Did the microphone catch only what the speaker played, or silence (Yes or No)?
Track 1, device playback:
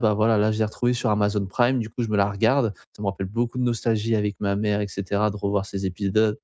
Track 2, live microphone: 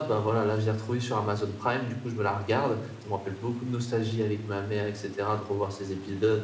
Yes